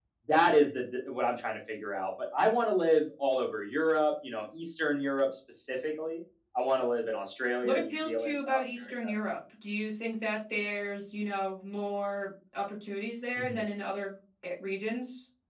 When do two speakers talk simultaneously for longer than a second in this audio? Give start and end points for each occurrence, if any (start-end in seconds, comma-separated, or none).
7.6-9.1